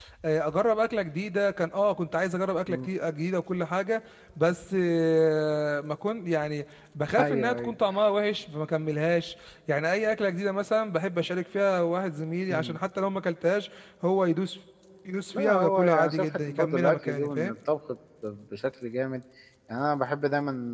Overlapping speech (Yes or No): Yes